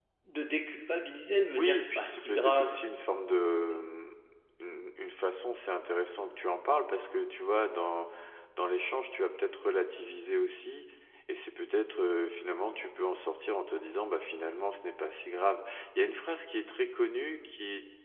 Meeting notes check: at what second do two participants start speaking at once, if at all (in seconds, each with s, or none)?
1.6 s